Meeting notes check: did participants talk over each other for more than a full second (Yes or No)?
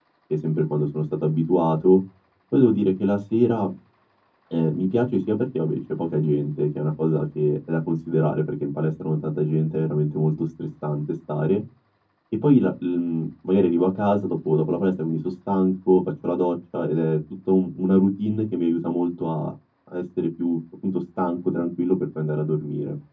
No